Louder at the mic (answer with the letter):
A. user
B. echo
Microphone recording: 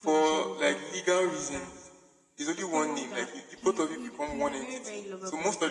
B